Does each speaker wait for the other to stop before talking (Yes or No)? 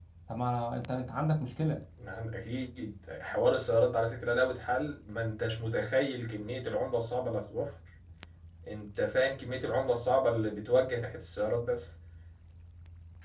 Yes